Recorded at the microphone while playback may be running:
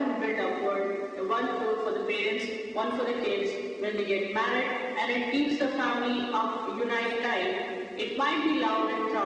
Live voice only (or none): none